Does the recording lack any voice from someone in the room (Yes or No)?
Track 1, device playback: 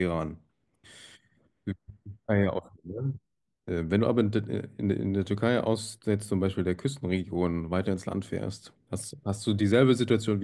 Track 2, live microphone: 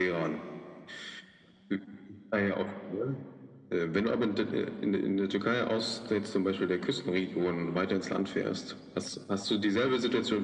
Yes